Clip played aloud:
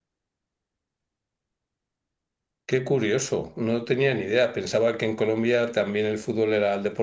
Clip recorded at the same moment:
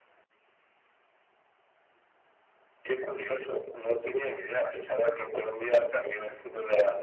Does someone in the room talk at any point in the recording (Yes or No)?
No